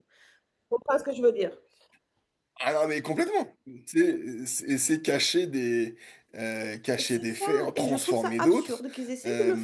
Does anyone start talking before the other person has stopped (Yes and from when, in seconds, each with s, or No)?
Yes, from 7.0 s